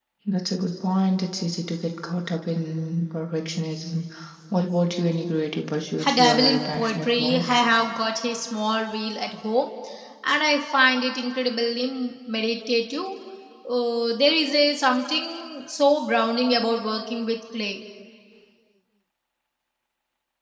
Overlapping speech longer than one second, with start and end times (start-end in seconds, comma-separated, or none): 6.0-7.5